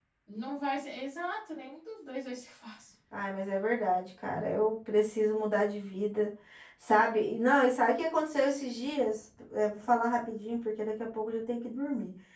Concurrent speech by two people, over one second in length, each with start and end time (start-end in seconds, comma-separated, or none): none